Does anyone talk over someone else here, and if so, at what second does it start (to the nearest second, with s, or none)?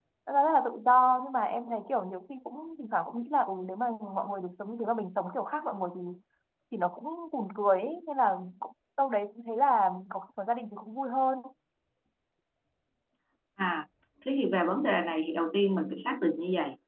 none